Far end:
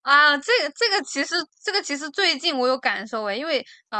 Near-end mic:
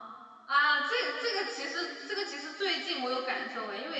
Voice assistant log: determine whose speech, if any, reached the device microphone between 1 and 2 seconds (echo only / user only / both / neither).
echo only